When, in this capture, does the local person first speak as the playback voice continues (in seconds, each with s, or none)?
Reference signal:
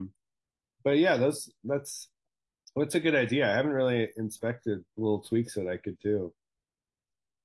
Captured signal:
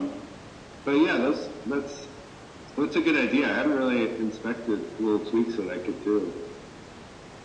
none